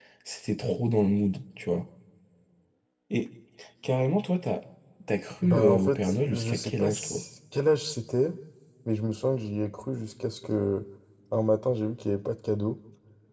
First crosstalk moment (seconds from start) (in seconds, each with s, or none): 5.4 s